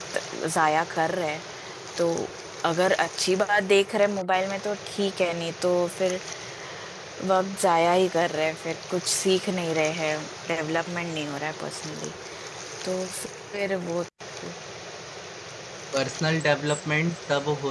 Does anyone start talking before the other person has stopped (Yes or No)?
No